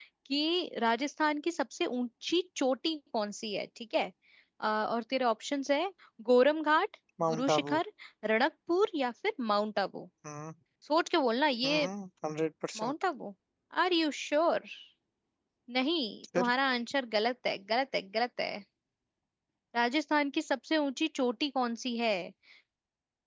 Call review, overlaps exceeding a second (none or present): none